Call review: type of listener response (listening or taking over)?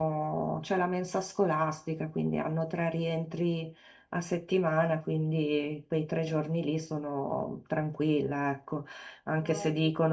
listening